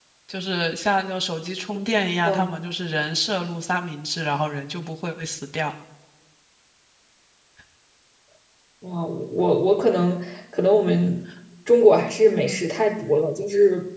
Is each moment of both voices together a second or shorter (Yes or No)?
Yes